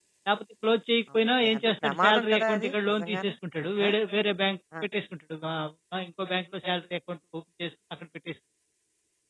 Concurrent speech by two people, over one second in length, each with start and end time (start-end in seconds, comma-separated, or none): 1.4-3.3